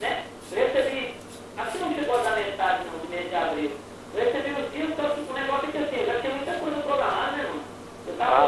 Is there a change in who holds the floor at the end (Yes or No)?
Yes